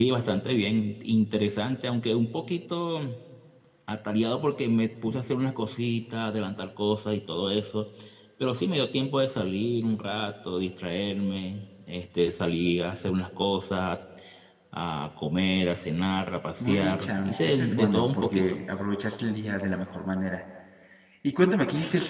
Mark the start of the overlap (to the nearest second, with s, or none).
17 s